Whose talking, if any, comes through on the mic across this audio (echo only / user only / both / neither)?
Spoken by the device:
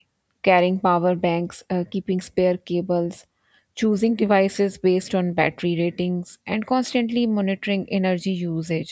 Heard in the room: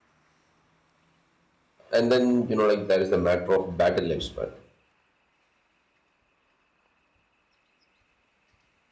user only